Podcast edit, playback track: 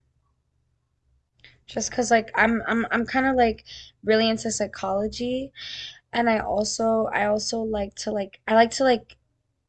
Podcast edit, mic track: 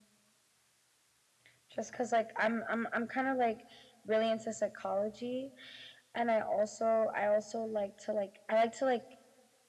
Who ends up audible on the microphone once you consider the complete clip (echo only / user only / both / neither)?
echo only